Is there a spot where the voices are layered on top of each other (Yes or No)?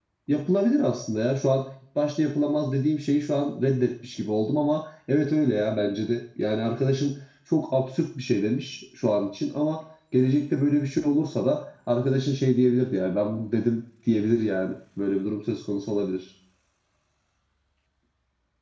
No